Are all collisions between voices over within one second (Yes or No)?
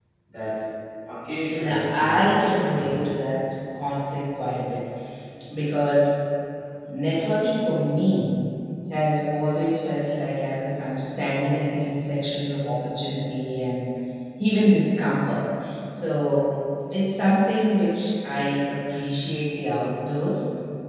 No